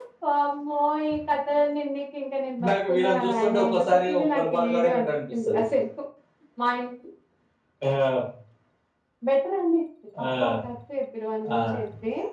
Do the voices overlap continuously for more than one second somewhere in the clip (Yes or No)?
Yes